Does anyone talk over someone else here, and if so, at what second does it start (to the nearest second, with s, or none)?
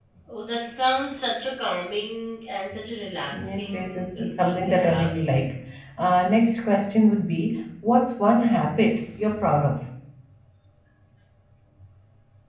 4 s